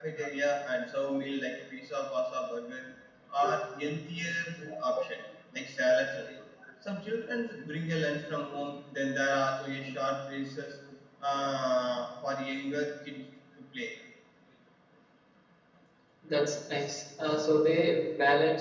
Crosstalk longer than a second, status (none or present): none